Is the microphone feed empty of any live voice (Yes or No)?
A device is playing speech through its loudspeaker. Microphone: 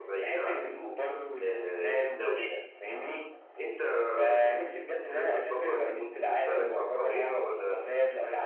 No